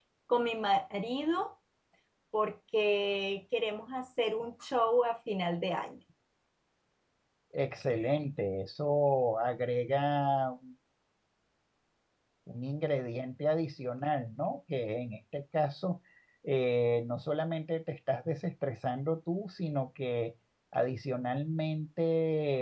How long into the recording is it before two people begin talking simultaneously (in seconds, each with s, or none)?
none